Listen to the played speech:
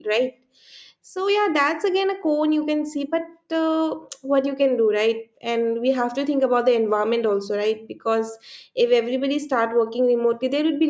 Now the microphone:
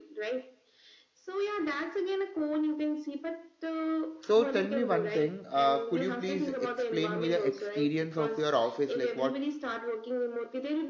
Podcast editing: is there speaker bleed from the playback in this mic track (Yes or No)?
Yes